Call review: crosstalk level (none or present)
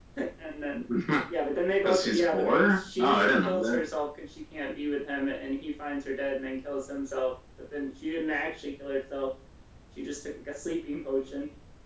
present